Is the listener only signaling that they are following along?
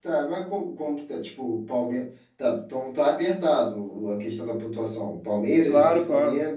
No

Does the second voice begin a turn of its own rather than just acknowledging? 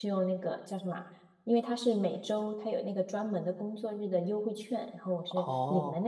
Yes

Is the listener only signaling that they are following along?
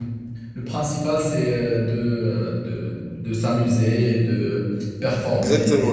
No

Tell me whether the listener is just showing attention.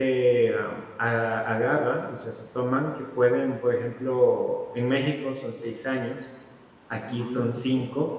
Yes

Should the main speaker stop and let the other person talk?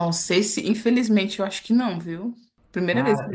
Yes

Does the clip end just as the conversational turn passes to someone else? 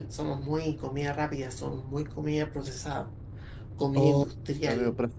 Yes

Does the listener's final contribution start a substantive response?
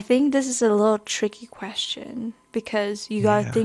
No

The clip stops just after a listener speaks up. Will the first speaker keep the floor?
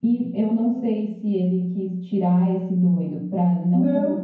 Yes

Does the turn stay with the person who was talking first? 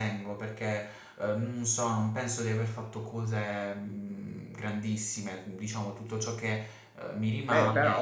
No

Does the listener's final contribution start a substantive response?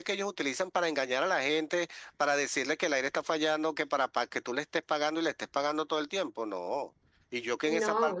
No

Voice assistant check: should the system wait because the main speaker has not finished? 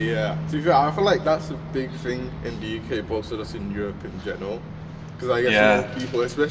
Yes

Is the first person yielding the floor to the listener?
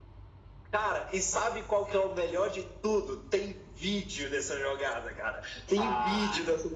No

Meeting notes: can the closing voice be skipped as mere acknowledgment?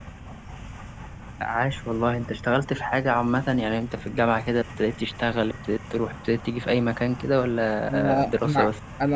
No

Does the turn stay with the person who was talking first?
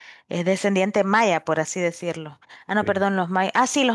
Yes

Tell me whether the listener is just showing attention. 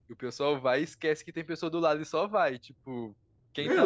No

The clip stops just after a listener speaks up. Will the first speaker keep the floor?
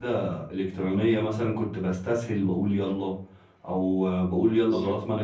Yes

